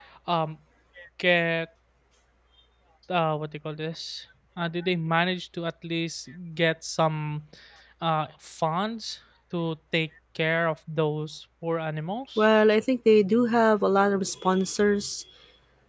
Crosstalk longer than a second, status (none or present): none